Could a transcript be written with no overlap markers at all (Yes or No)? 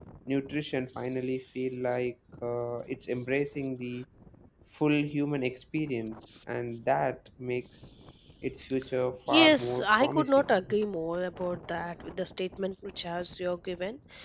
No